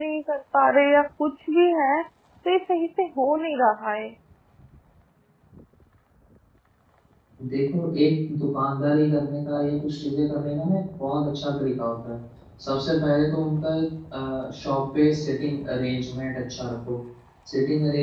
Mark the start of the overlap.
none

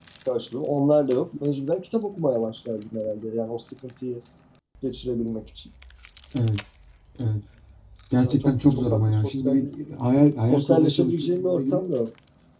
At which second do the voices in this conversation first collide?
8.2 s

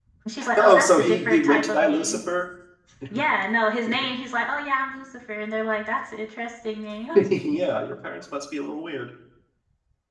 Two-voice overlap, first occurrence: 0.6 s

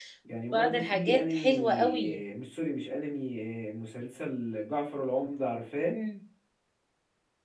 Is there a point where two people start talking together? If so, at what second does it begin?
0.5 s

